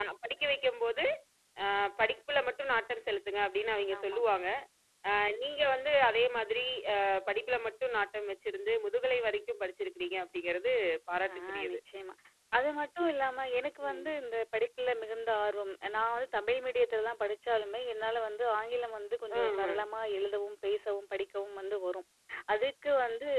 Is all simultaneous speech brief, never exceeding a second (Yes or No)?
Yes